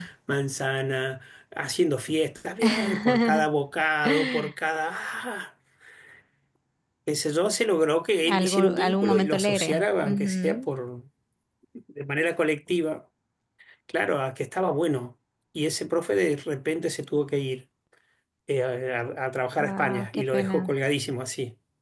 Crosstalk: present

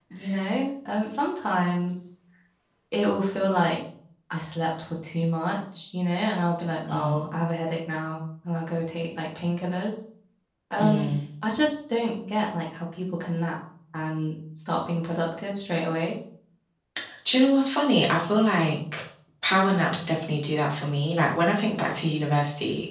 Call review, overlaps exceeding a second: none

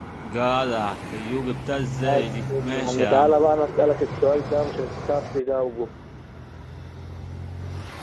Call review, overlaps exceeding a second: present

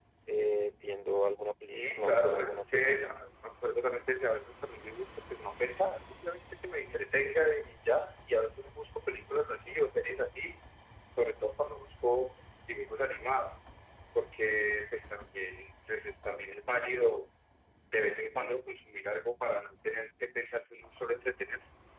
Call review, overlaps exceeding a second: present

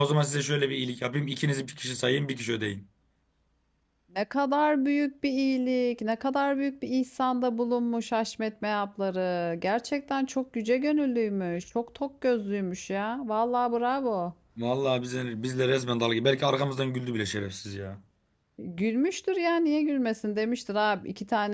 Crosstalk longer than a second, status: none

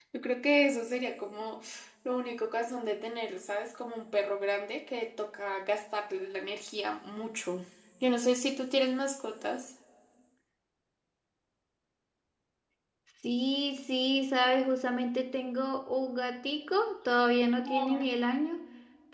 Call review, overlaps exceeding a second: none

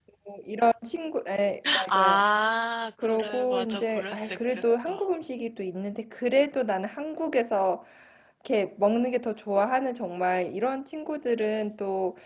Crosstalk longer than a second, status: present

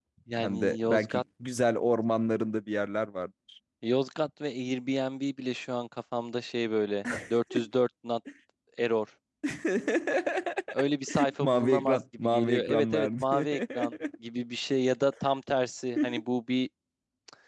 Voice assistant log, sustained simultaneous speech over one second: present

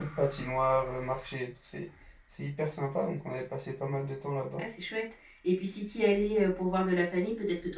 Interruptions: none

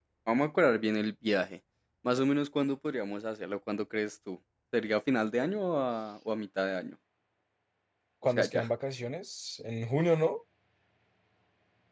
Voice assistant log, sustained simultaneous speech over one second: none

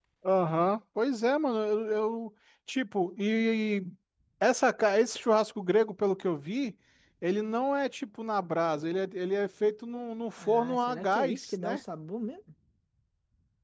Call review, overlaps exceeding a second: present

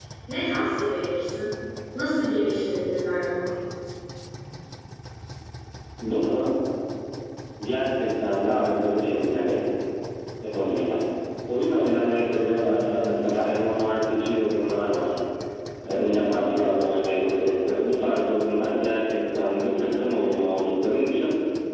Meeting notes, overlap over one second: none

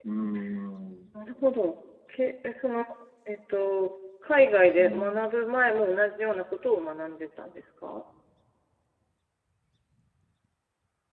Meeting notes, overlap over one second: none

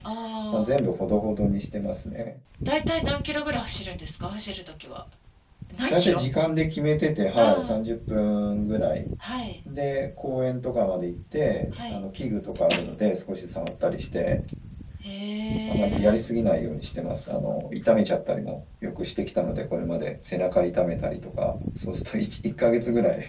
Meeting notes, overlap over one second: none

